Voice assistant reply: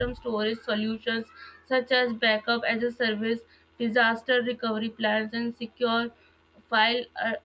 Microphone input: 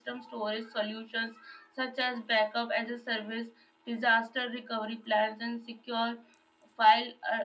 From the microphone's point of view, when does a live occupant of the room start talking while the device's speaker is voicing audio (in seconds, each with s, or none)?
none